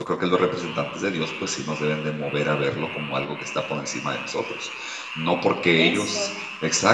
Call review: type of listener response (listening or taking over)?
listening